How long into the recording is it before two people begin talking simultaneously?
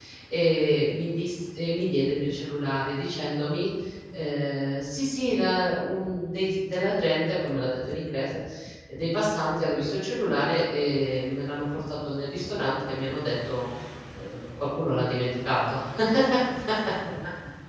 none

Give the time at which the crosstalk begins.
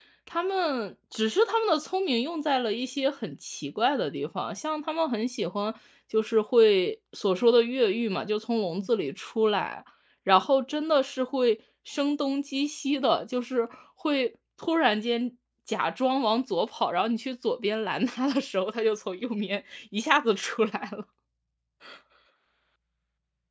none

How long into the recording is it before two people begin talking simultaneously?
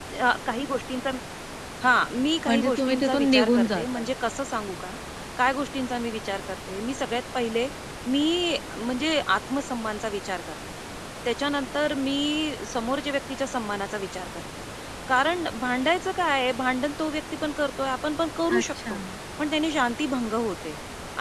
2.5 s

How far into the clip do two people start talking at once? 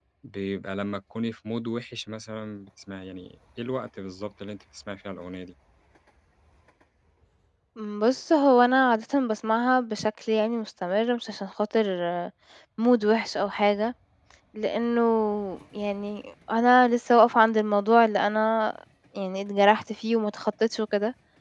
none

